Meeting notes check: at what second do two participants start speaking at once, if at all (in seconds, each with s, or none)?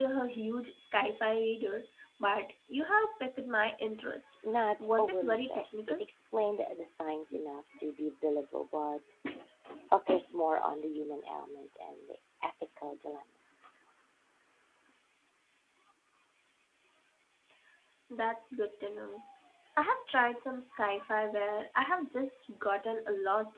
4.8 s